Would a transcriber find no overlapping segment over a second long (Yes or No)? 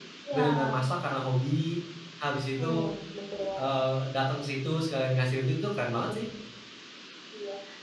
Yes